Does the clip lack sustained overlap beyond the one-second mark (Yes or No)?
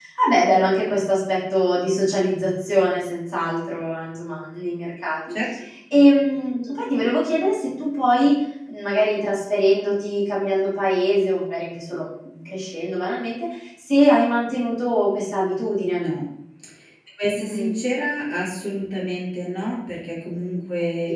Yes